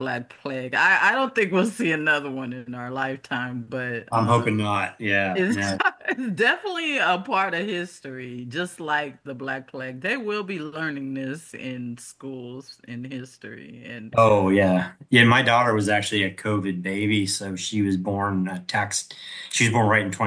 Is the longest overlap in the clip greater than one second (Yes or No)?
No